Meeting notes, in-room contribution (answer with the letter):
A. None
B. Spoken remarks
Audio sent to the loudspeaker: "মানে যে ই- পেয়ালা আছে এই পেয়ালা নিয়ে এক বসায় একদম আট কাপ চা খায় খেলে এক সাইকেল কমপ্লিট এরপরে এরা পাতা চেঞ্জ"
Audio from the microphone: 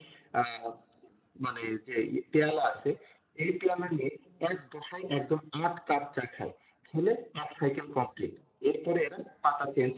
A